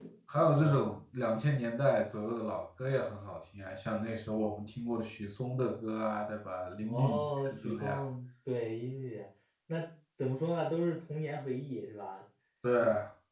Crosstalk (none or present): present